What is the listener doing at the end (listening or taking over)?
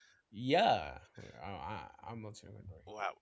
taking over